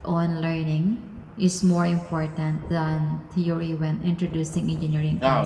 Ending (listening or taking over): taking over